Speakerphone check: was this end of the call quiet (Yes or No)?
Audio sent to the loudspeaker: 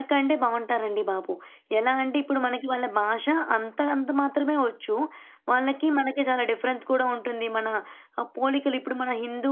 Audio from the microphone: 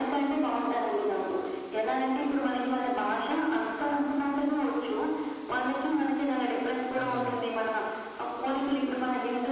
No